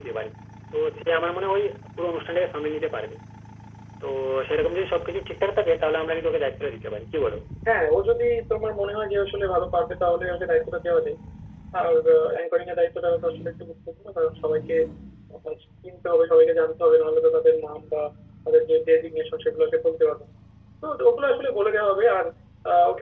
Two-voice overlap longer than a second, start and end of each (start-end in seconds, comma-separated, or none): none